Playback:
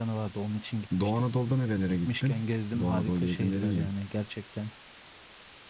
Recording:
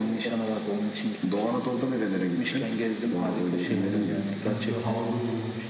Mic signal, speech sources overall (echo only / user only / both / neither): both